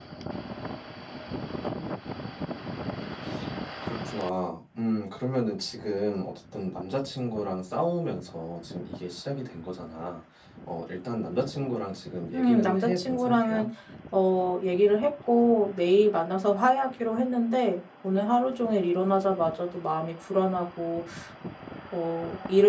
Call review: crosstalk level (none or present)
present